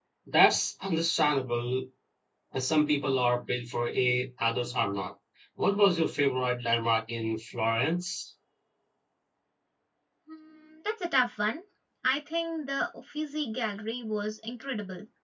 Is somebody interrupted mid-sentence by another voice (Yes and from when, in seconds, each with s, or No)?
No